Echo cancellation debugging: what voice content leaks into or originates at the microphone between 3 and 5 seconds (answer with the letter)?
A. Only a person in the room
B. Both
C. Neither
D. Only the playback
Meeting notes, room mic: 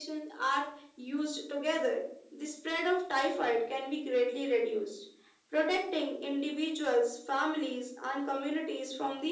D